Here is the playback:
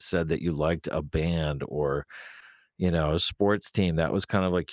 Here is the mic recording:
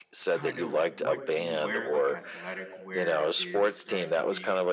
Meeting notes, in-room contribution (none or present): present